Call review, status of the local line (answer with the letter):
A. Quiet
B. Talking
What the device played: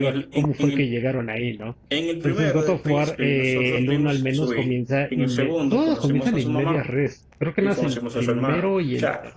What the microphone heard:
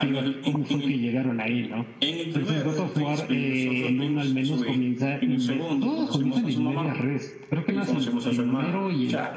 A